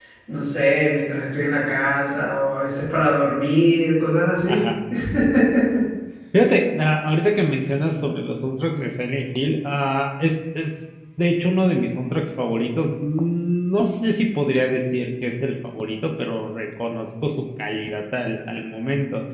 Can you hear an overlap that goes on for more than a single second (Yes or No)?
No